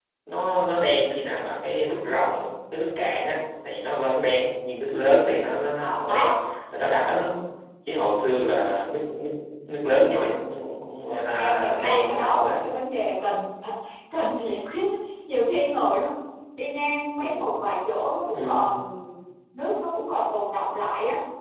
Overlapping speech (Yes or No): Yes